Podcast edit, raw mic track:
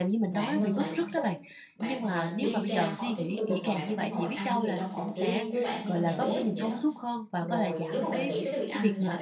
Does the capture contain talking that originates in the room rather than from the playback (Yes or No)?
Yes